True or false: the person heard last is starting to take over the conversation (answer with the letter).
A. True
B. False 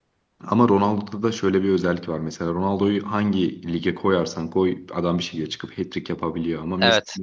A